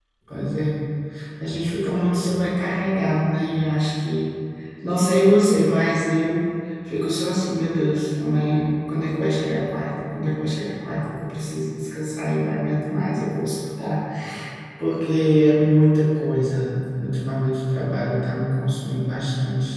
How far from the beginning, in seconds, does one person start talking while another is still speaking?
none

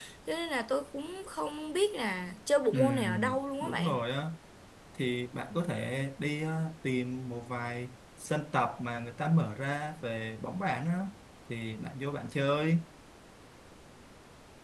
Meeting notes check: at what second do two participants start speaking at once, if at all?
2.7 s

